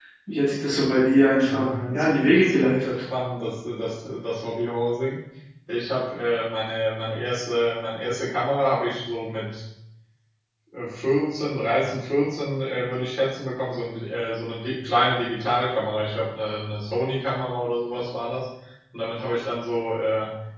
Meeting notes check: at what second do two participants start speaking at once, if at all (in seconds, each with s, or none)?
1.4 s